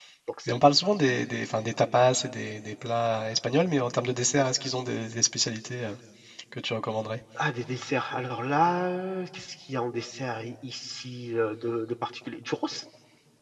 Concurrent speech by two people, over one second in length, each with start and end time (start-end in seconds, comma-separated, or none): none